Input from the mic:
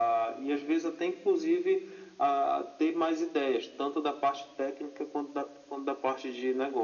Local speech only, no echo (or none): none